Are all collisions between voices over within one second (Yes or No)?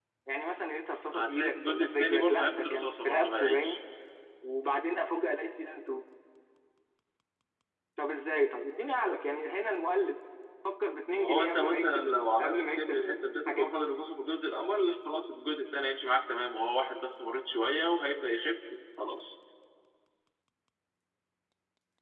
No